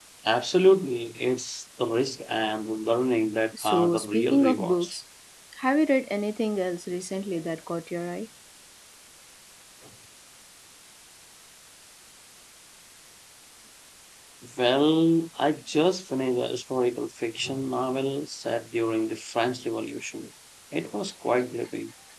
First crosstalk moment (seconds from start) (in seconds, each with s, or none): 3.6 s